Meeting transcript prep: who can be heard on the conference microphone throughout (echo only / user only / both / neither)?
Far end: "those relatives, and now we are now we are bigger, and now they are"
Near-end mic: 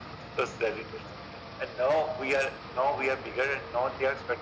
echo only